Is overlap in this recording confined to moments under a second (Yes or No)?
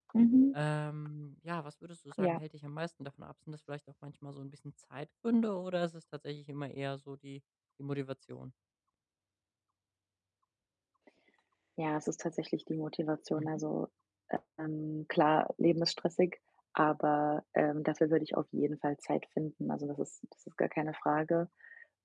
Yes